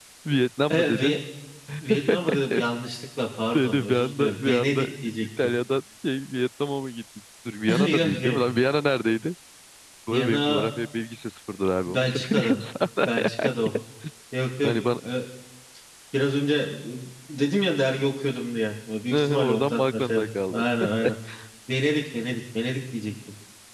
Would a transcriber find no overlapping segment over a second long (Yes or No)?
No